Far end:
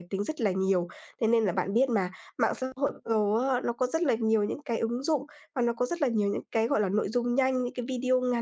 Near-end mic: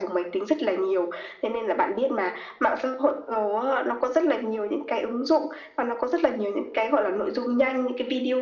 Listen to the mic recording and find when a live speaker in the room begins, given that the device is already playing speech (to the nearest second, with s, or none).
none